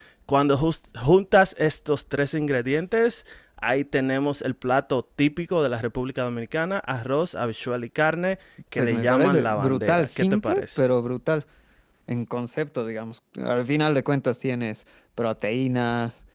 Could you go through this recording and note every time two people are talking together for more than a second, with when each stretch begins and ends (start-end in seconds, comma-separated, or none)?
8.8-10.8